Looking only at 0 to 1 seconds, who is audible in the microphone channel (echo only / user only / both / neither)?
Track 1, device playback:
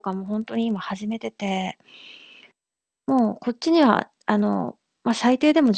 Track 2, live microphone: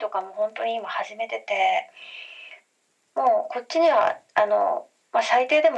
echo only